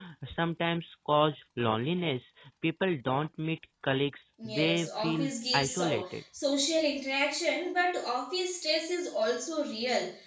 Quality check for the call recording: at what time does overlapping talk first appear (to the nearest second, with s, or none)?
4 s